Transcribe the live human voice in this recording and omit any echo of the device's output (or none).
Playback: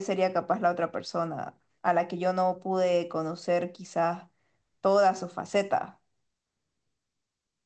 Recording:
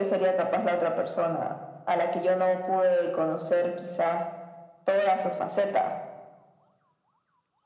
none